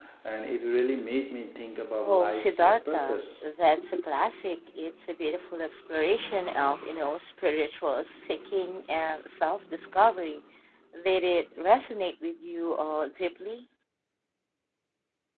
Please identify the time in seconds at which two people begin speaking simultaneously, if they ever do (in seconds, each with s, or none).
2.0 s